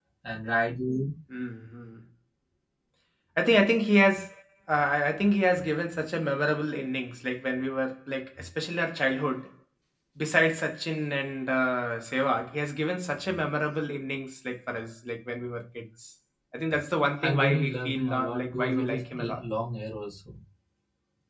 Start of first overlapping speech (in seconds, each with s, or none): 17.2 s